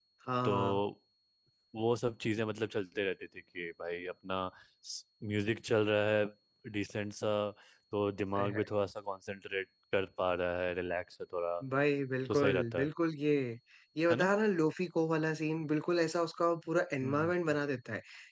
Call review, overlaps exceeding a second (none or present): none